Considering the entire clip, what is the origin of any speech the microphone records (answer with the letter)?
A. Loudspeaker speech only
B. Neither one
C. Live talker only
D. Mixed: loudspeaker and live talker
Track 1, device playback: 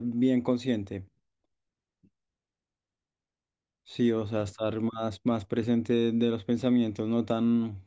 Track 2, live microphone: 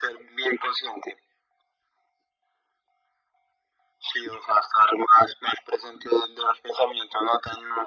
A